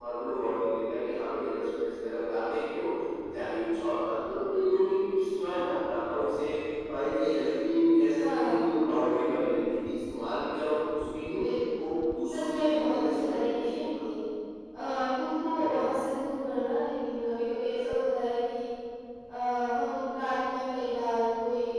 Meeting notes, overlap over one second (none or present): present